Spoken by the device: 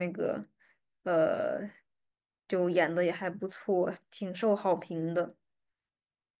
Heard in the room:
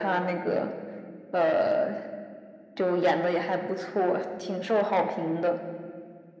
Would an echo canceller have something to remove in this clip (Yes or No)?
Yes